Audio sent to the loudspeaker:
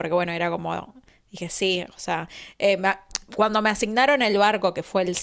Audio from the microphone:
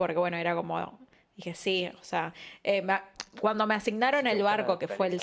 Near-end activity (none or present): present